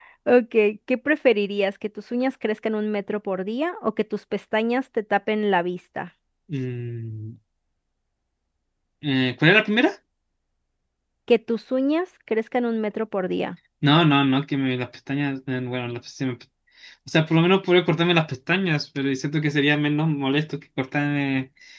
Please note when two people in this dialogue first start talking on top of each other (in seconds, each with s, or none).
none